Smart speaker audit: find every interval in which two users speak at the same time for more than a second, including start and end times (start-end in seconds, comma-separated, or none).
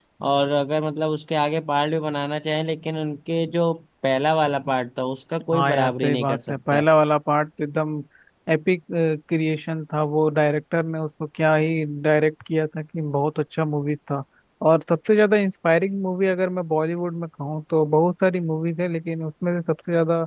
5.5-6.8